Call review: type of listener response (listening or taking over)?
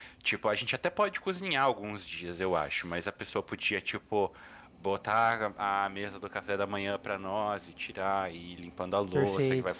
listening